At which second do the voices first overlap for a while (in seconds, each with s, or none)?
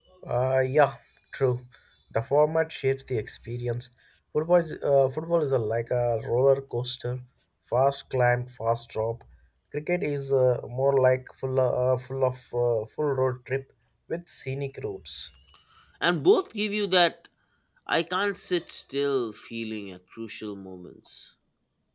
none